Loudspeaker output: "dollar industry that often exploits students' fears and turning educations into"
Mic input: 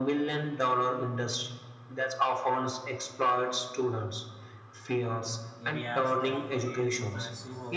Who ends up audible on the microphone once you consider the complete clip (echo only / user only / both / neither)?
both